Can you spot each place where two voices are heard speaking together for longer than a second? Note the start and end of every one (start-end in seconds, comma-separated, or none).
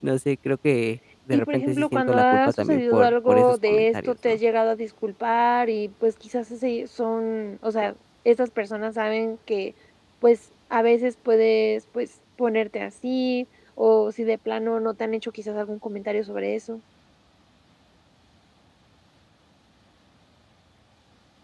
1.3-4.4